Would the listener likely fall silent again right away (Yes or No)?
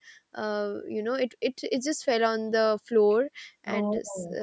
Yes